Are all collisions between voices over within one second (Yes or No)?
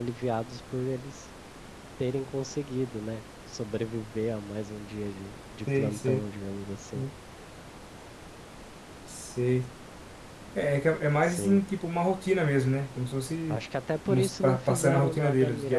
No